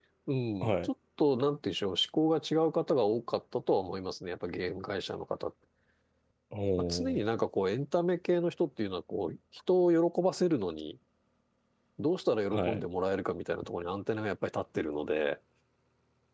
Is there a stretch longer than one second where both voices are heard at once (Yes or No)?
No